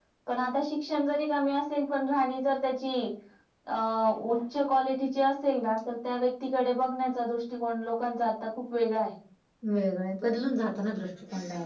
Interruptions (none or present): none